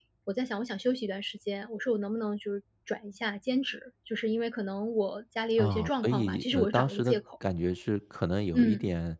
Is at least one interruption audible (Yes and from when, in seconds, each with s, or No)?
Yes, from 5.6 s